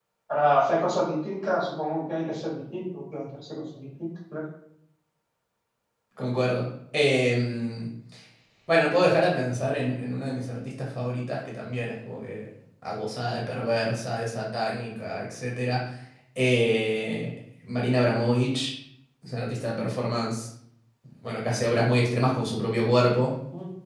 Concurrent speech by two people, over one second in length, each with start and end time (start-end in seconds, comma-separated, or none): none